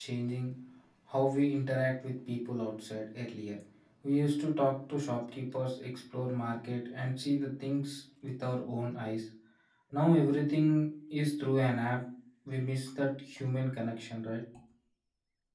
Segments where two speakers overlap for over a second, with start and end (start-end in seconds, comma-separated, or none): none